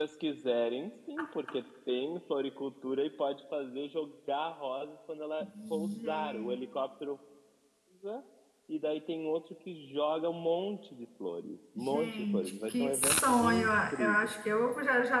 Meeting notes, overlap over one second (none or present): present